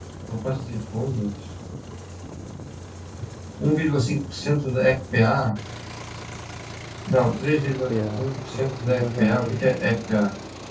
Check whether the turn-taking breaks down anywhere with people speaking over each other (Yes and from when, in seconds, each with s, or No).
Yes, from 7.6 s